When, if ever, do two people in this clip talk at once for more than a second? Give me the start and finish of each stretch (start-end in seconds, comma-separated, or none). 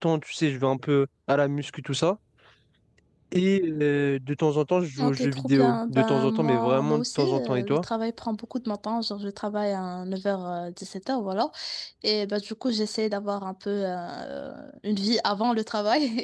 5.0-7.8